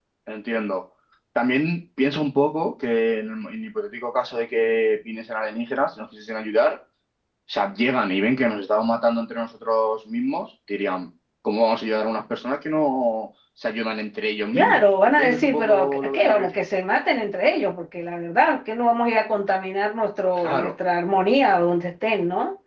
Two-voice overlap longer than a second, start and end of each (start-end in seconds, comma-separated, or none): 14.5-16.5